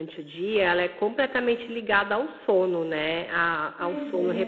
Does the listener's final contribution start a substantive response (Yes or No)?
No